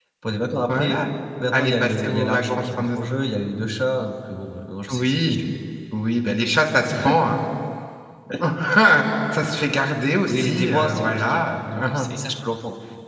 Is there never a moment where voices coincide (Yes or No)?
No